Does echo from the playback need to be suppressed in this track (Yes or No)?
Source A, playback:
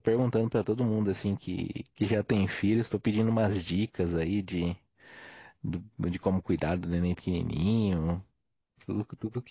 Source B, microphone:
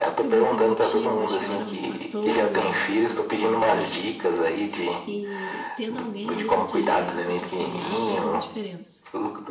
Yes